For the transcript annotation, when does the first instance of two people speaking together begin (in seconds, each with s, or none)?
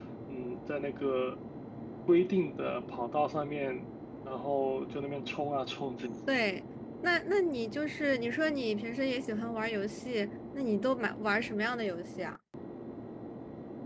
none